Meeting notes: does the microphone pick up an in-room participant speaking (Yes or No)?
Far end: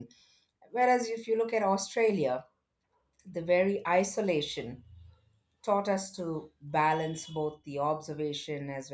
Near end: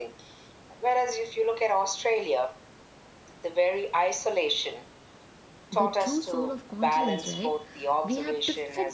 Yes